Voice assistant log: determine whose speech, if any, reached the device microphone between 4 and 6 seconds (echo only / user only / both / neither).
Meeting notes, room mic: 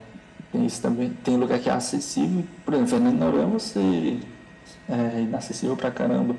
echo only